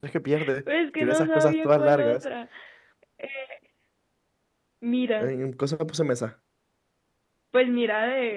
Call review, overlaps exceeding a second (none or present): present